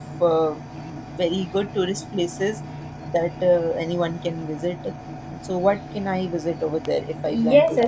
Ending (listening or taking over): taking over